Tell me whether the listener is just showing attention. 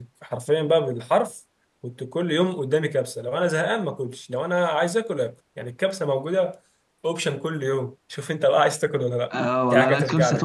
No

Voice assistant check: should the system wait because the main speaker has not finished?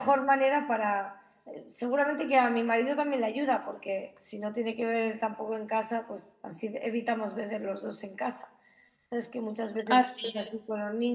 Yes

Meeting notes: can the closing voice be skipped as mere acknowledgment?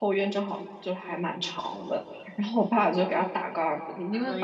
Yes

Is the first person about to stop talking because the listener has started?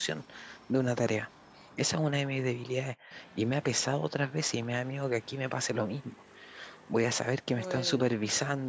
No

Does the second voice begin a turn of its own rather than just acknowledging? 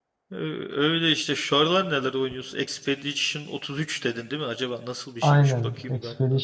Yes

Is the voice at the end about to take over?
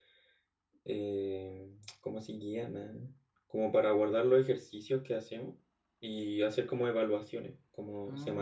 Yes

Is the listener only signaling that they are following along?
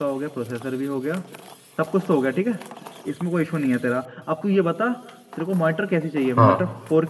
Yes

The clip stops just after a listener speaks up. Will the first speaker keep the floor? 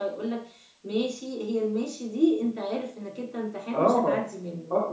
No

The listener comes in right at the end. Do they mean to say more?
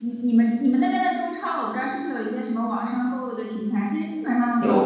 No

